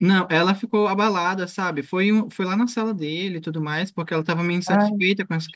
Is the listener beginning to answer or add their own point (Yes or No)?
No